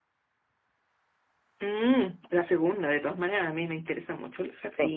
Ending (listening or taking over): listening